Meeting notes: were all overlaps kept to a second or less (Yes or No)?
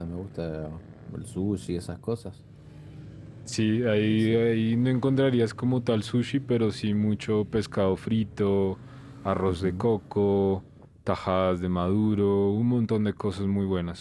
Yes